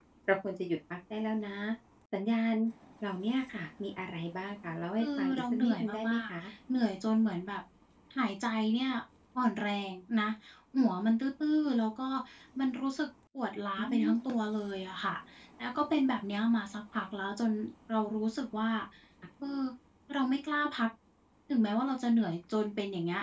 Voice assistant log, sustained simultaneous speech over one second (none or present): present